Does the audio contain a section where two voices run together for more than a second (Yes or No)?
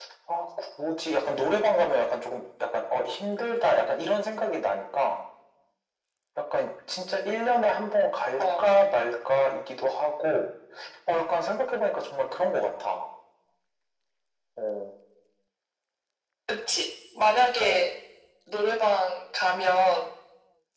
No